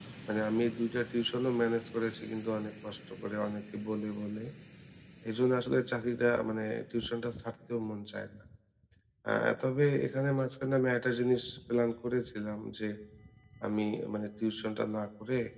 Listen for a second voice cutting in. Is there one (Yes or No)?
No